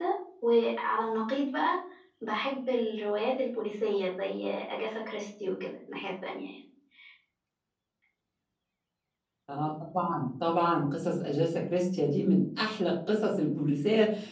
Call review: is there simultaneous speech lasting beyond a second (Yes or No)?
No